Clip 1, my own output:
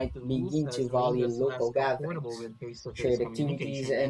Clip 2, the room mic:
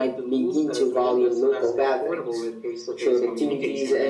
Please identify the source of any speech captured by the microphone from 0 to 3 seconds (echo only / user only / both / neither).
echo only